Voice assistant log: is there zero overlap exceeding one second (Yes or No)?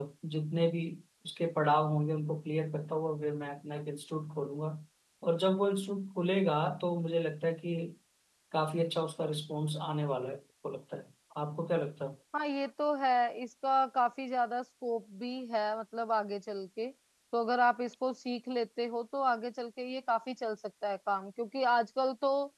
Yes